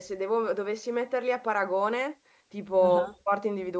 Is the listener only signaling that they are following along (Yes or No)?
Yes